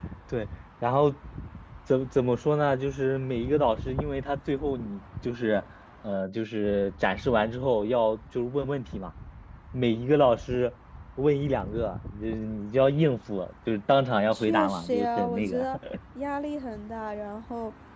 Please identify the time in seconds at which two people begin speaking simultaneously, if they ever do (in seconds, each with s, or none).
14.3 s